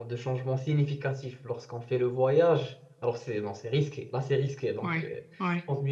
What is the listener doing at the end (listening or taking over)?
listening